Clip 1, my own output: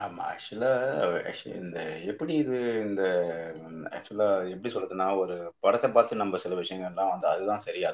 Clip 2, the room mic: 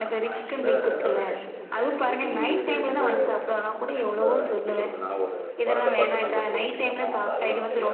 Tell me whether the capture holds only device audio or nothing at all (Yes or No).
No